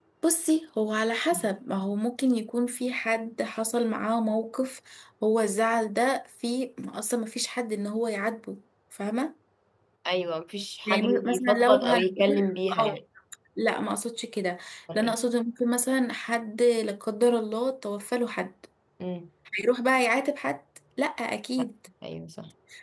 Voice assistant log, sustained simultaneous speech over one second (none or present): present